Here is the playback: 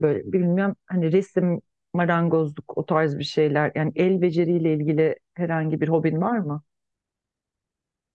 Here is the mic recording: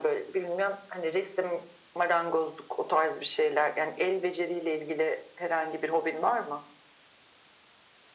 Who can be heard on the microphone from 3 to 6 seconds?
echo only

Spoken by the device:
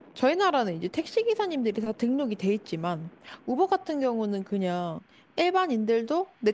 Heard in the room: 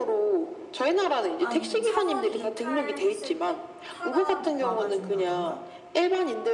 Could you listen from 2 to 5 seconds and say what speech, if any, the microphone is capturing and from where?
both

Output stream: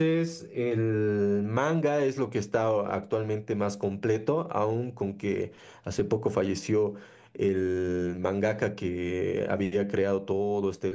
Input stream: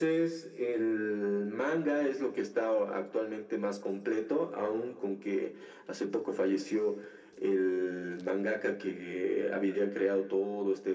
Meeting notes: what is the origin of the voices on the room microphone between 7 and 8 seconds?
echo only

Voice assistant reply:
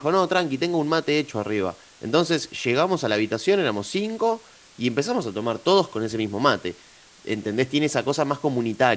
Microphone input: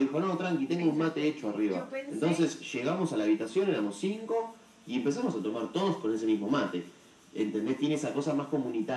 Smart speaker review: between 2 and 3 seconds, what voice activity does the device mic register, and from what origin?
both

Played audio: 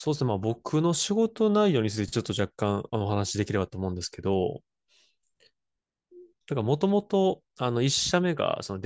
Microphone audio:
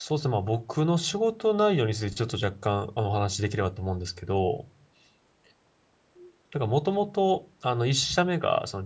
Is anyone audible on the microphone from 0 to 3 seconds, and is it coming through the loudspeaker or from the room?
echo only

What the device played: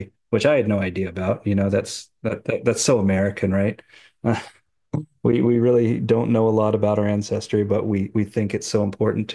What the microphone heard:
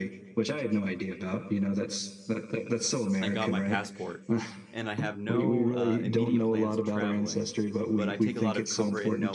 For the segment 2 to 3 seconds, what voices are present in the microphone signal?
echo only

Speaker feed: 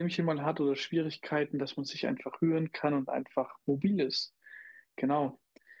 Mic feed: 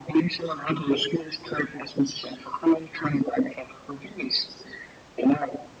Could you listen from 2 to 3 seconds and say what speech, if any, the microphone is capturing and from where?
echo only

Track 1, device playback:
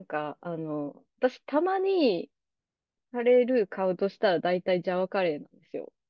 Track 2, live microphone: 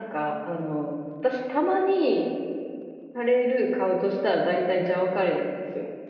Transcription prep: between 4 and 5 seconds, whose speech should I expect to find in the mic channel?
echo only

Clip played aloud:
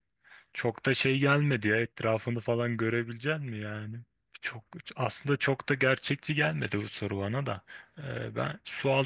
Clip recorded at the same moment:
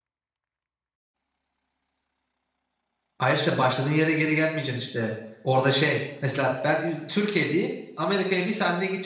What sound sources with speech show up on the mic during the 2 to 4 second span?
user only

